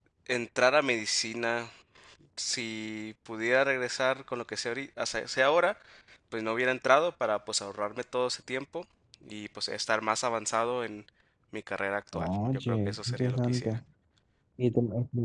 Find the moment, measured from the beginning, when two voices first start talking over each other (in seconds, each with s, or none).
12.1 s